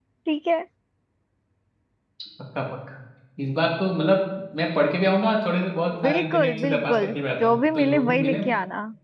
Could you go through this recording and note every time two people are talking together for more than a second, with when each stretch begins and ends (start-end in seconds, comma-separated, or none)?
6.0-8.4